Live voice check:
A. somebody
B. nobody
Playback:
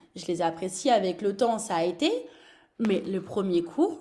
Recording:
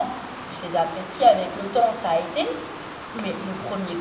B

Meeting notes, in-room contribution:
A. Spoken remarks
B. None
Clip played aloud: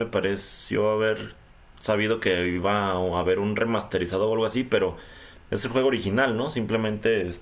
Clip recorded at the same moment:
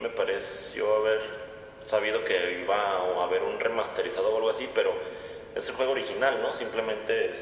B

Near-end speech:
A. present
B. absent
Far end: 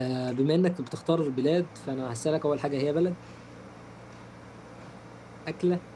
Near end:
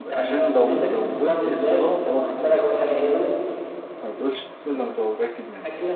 A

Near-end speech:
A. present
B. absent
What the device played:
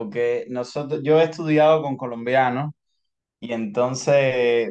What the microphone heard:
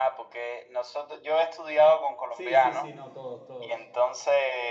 A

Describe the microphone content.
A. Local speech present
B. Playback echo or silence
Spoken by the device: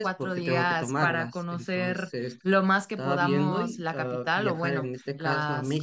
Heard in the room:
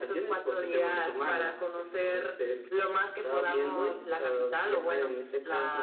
B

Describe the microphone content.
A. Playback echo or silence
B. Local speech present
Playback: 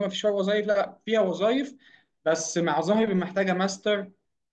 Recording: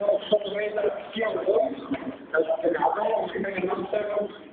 A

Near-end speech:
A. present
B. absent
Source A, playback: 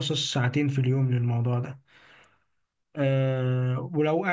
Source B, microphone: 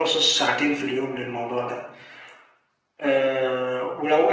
B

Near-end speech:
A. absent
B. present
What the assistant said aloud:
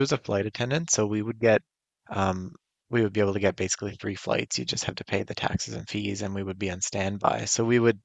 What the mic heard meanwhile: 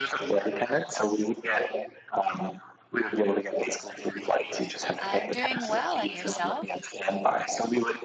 B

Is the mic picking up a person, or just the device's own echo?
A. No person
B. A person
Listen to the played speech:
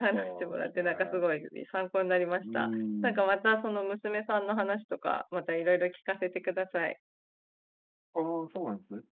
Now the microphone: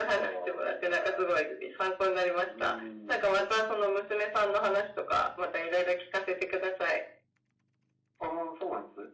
A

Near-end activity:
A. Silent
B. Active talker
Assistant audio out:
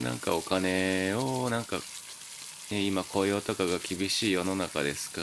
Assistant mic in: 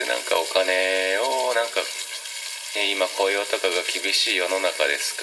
A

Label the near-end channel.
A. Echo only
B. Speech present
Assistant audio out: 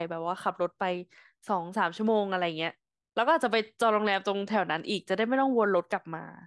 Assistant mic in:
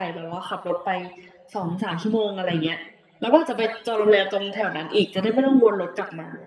A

